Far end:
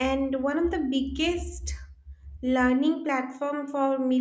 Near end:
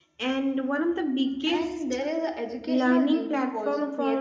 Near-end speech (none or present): present